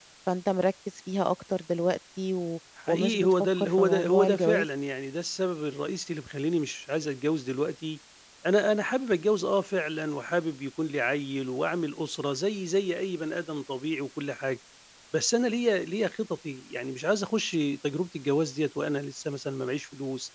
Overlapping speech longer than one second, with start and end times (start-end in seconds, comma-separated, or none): 2.9-4.7